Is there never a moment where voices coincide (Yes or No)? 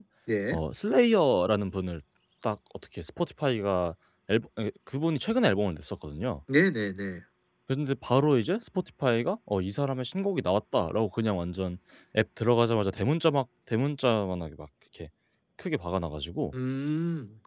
Yes